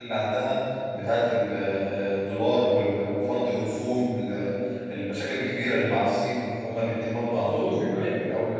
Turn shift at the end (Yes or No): Yes